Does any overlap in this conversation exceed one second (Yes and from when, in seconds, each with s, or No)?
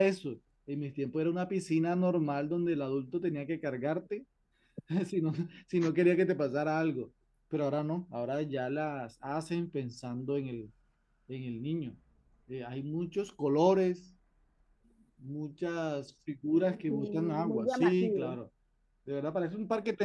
Yes, from 16.9 s